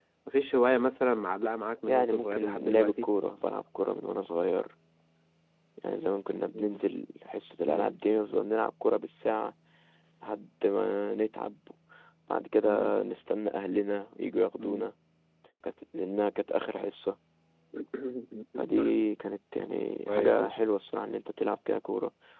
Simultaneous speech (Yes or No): Yes